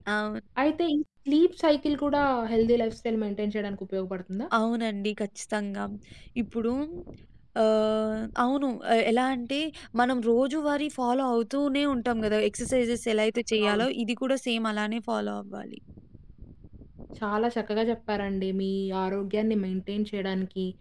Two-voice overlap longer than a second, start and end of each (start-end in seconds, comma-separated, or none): none